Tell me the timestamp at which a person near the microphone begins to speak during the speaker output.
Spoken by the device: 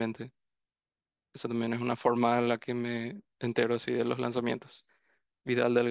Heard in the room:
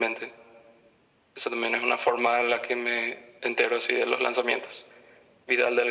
none

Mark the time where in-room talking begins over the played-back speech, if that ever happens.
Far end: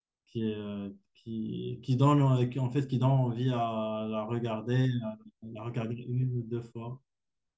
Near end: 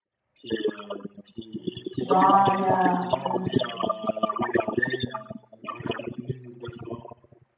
2.0 s

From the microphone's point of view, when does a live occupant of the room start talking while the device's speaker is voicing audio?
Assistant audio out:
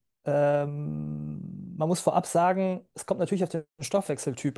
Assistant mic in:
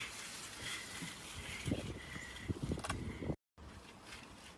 none

